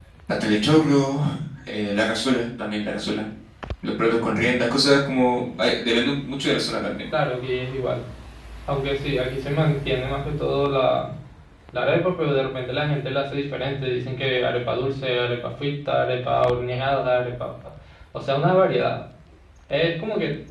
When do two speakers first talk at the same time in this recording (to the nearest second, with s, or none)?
none